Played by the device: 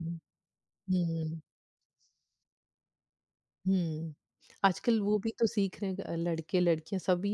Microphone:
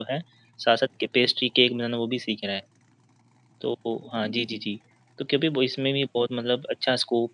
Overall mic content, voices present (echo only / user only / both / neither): user only